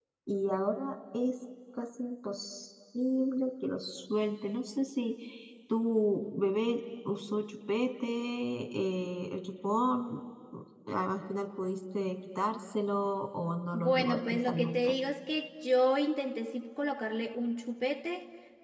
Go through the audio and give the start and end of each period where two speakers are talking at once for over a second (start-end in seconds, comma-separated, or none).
13.7-14.9